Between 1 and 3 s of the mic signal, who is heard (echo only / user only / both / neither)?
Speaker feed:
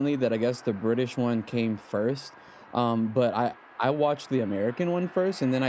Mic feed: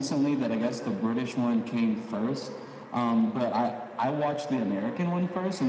echo only